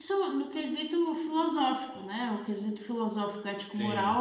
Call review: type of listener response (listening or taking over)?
listening